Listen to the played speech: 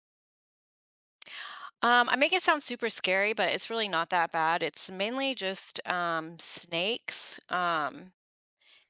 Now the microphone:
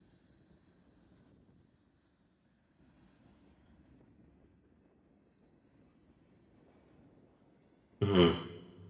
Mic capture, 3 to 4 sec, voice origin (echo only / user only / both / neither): neither